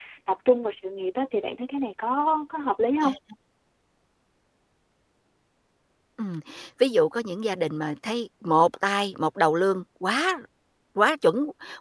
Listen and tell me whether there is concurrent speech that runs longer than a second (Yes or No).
No